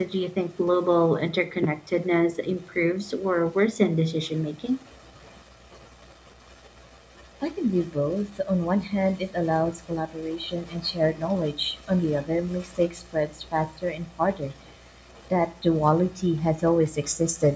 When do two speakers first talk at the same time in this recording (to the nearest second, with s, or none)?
none